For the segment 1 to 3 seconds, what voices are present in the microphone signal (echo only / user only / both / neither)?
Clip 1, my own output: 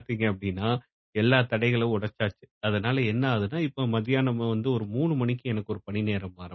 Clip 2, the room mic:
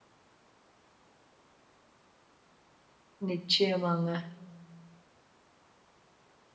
neither